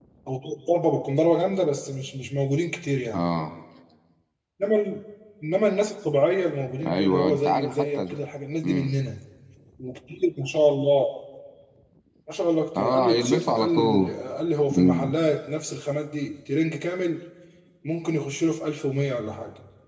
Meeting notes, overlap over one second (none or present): present